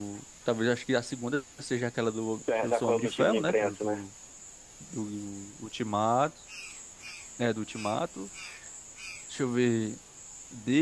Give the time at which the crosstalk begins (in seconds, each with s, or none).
2.4 s